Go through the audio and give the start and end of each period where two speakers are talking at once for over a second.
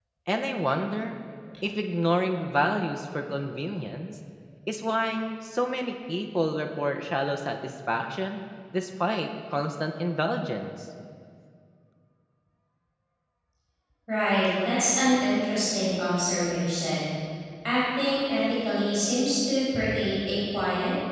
none

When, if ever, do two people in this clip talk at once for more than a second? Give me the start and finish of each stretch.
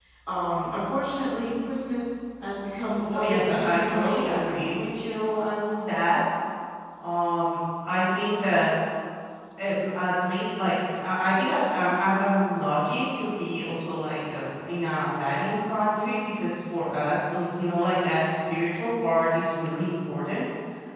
3.1-4.4

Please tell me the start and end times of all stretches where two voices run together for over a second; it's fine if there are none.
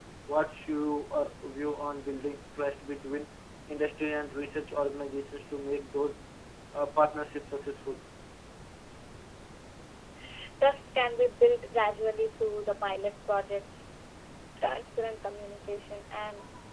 none

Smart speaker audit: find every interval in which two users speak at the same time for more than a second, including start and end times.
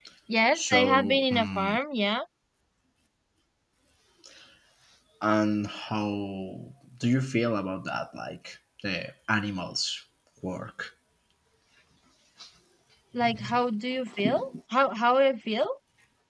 0.5-1.8

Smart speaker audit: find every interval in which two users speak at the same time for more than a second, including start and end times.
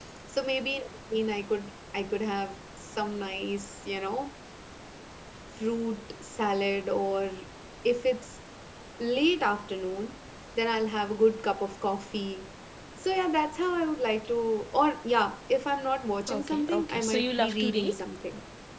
16.3-18.0

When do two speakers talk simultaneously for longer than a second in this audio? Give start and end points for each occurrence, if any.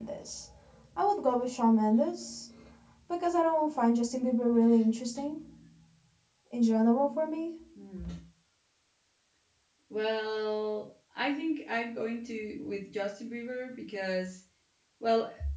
none

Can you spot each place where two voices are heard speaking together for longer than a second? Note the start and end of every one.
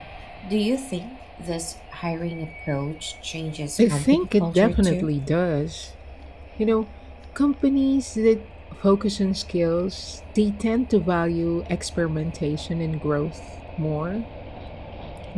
3.8-5.1

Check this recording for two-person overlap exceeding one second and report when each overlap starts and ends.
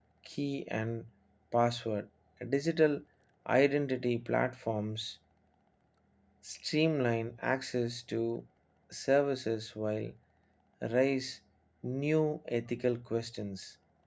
none

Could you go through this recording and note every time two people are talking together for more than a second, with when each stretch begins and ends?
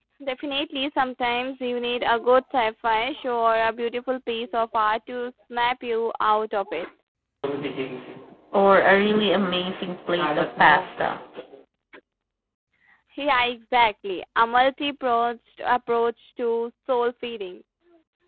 none

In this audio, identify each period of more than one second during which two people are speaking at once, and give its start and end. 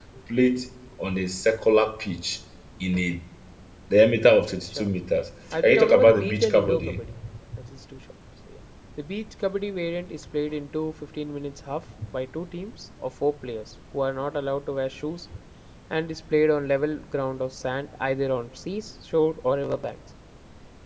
5.6-7.0

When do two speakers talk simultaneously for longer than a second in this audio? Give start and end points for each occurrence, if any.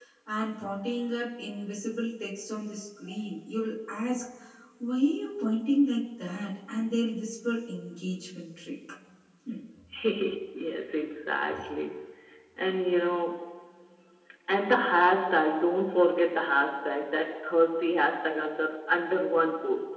none

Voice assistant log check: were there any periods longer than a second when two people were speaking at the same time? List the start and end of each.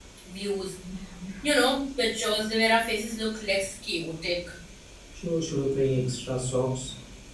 none

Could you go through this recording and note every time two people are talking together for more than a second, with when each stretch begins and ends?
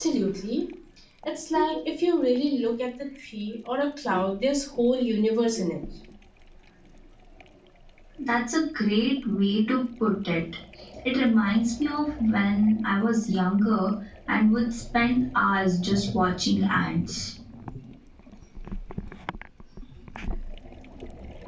none

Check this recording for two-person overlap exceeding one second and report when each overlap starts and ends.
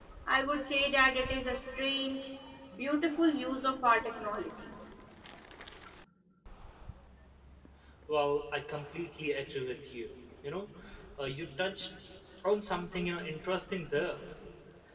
none

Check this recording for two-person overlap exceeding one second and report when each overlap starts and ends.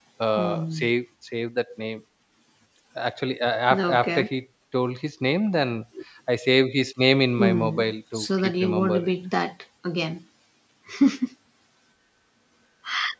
7.4-9.0

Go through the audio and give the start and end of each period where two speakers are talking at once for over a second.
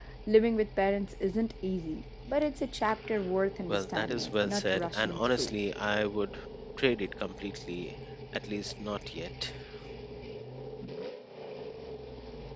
3.7-5.5

